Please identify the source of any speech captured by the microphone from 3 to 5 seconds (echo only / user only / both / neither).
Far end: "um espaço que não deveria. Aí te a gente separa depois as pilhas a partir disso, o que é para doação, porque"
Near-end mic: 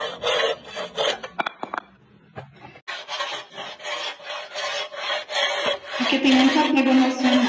neither